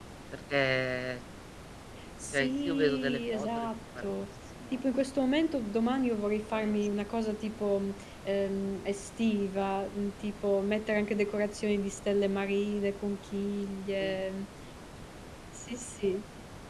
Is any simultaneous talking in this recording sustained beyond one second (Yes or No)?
Yes